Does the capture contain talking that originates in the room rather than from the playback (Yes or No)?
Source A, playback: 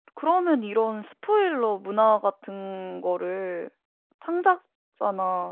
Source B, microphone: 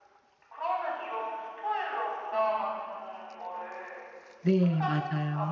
Yes